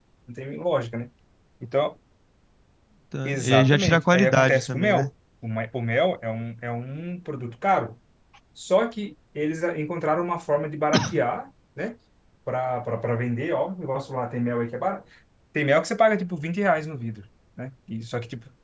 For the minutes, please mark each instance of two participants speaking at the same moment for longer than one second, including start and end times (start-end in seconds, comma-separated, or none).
3.2-5.1